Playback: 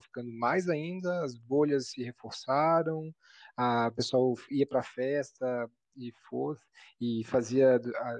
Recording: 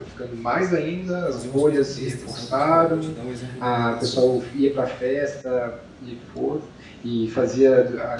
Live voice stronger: No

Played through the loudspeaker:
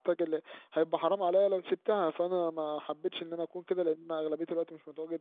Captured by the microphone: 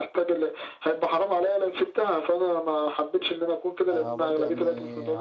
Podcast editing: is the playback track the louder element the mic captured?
Yes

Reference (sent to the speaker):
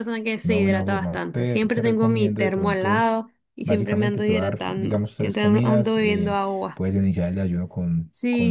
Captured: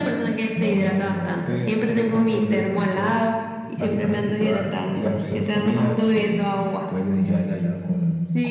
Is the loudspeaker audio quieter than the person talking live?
No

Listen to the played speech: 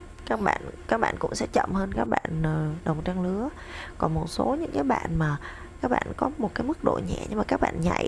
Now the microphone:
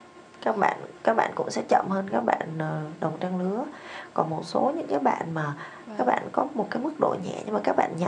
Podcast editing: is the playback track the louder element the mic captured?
Yes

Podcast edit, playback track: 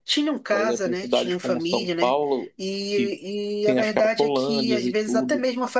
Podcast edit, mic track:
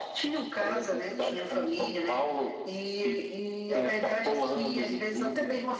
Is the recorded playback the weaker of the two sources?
No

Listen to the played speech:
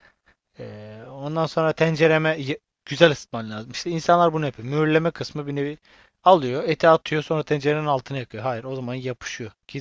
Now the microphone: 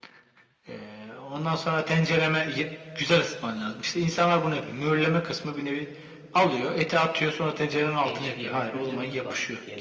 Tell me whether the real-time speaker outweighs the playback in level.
No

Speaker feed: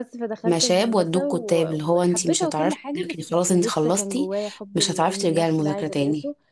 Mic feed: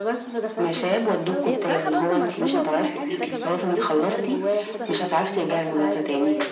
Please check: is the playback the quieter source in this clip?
No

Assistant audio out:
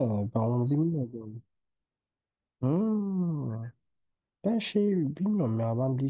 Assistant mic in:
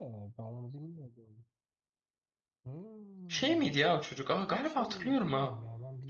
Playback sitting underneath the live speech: Yes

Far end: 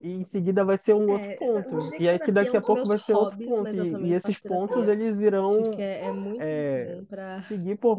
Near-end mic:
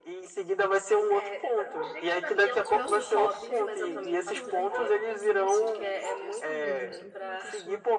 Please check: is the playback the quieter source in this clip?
No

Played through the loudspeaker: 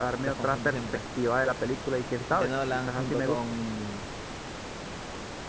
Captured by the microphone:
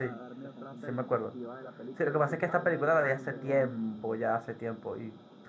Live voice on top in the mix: Yes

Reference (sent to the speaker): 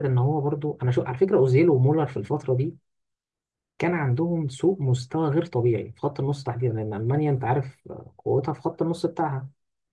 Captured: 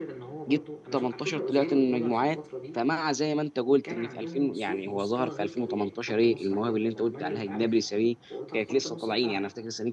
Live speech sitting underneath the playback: No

